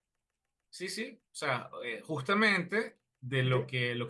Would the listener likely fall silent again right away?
Yes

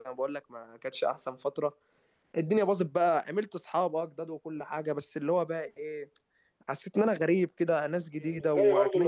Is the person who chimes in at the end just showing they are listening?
No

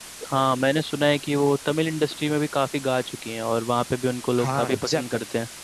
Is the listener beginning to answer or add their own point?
Yes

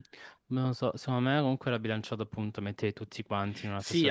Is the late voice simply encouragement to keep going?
No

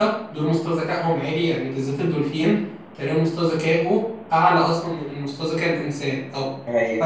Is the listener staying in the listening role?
Yes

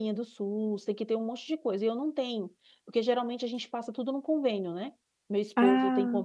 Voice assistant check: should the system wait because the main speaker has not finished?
Yes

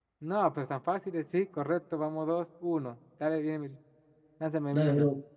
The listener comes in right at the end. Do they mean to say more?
Yes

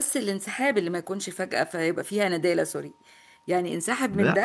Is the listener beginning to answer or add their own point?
Yes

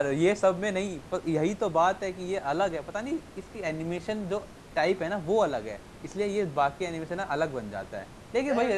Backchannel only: Yes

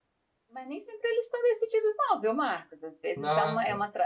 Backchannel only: Yes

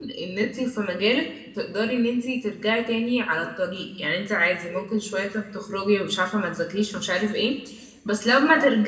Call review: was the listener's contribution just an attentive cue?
Yes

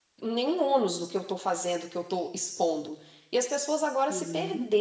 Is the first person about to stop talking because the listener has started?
No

